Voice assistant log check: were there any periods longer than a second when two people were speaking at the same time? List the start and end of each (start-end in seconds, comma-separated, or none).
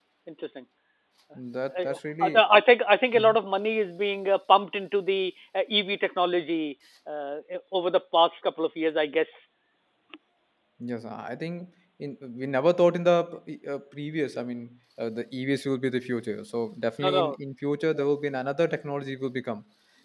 none